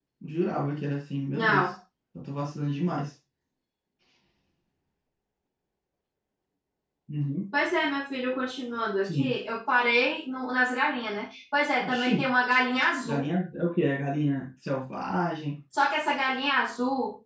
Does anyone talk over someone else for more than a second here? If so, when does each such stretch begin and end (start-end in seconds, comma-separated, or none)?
none